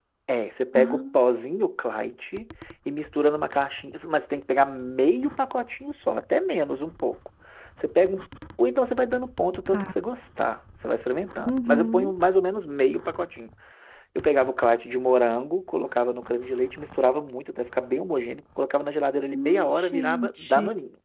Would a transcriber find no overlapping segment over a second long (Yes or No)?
No